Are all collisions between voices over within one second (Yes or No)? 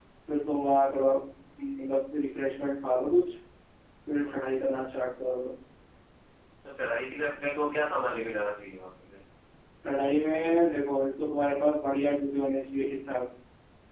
Yes